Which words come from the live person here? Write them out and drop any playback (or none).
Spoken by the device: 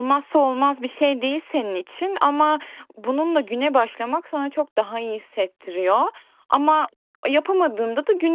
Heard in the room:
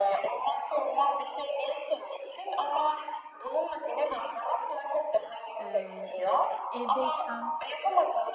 Emm, yani, evdeysem